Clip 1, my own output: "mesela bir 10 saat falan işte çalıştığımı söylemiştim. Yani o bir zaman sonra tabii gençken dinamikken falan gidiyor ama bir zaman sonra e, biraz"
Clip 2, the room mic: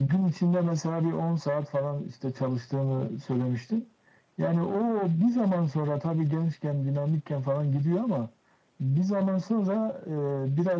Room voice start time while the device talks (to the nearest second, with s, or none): none